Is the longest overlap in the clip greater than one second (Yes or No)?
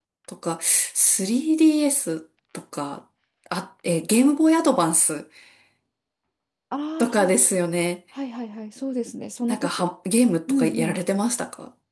No